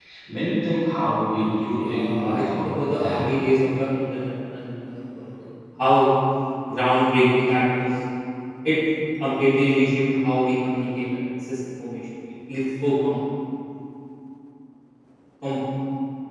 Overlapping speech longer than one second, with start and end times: 1.6-3.3

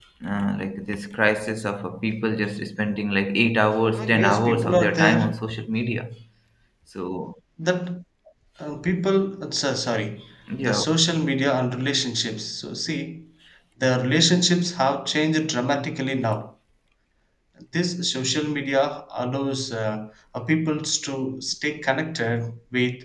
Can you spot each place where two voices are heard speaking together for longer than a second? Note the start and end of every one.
3.9-5.4

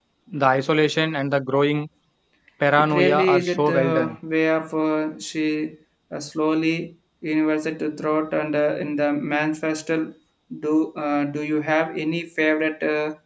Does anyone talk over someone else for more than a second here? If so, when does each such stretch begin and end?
2.8-4.2

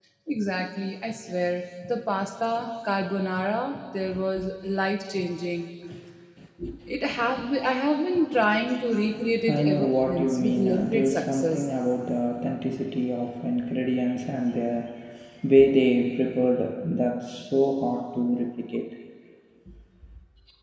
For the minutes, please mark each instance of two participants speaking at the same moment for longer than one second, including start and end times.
9.5-11.7

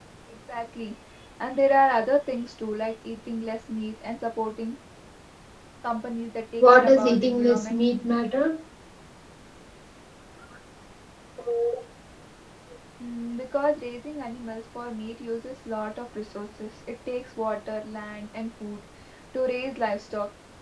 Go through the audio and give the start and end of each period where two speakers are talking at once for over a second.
6.6-7.8

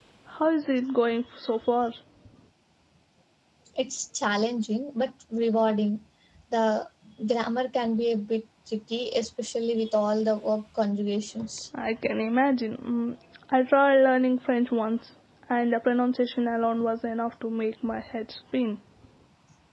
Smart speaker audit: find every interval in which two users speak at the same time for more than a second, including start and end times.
none

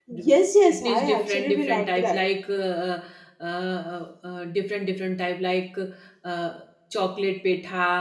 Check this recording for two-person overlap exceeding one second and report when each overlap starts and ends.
0.7-2.2

